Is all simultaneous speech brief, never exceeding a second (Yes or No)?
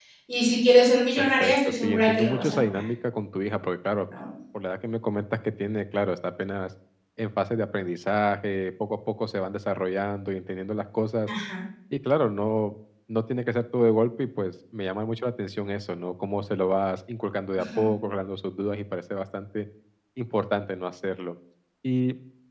No